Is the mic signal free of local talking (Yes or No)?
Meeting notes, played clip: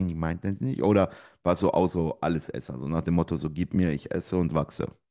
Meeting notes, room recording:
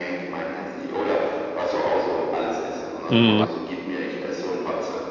No